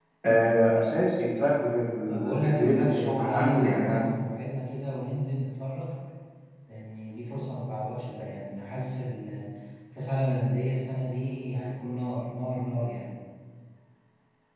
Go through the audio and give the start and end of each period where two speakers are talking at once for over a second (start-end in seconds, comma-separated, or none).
2.0-4.1